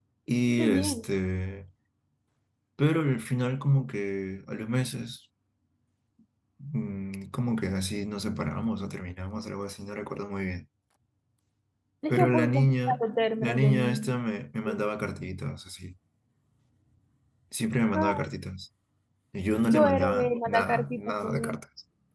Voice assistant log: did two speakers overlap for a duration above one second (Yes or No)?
Yes